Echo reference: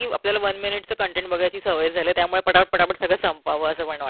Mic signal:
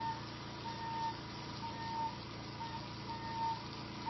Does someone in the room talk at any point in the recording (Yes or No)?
No